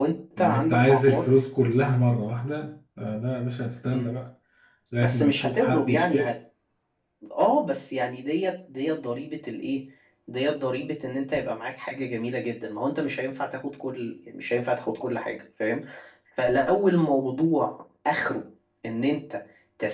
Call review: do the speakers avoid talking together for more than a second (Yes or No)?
No